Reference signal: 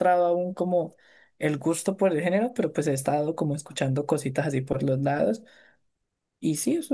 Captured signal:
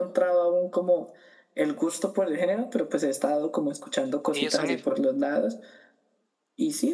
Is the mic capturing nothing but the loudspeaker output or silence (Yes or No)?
No